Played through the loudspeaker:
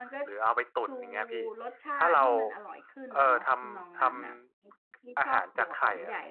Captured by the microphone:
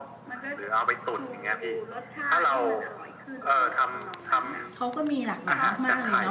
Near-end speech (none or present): present